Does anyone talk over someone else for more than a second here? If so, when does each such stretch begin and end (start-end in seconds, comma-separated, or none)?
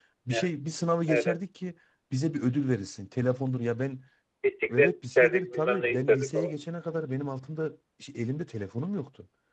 4.7-6.6